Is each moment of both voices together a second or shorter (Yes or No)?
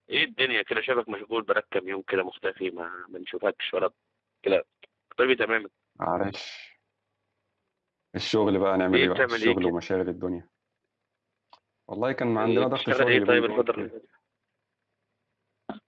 No